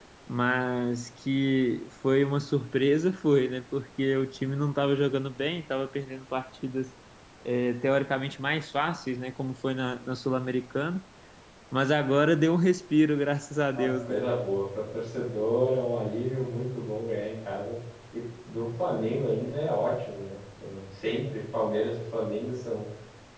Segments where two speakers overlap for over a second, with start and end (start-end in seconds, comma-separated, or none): none